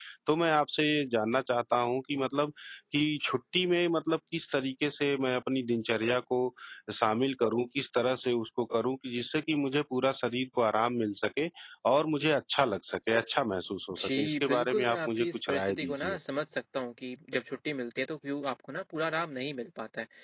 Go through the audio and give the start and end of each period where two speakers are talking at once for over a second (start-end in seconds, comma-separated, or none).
14.0-16.2